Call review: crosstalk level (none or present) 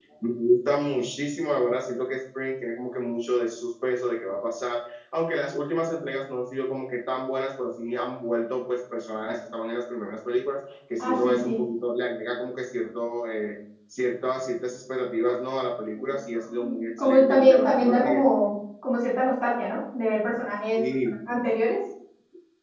present